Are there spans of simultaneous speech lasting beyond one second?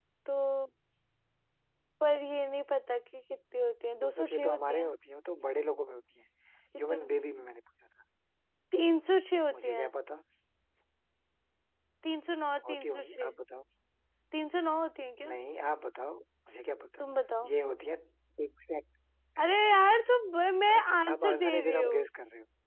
Yes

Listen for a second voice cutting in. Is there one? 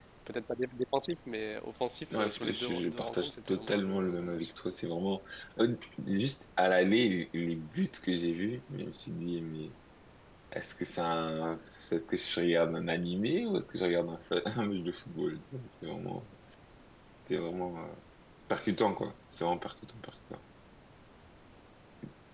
Yes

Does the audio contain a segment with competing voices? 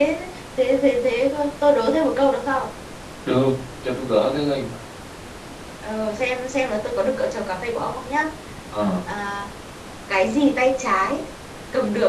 No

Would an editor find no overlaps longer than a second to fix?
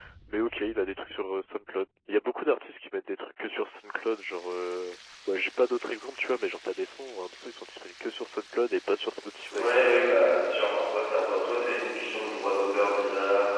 Yes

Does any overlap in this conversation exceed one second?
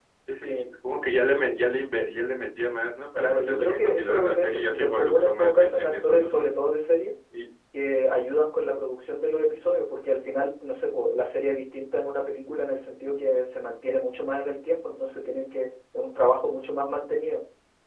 Yes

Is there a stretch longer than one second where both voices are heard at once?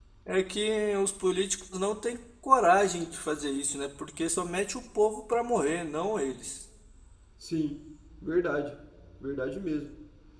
No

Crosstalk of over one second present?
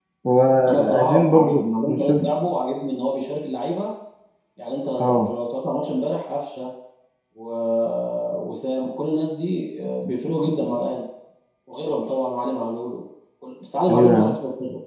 Yes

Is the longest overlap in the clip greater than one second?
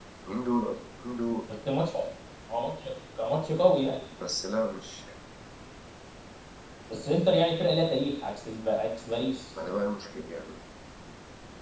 No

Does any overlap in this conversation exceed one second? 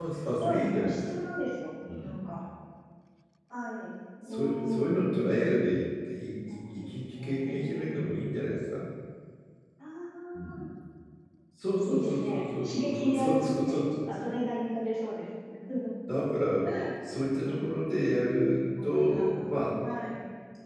Yes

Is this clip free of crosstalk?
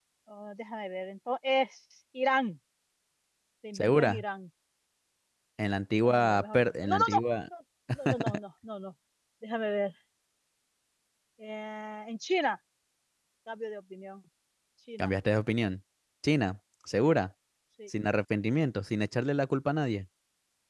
No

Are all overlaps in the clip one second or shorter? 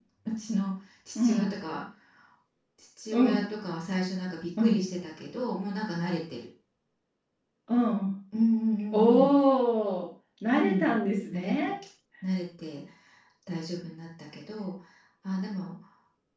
Yes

